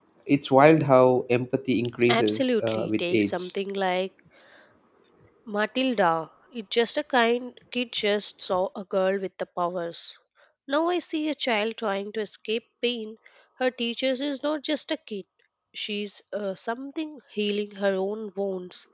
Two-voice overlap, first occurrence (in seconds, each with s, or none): 2.1 s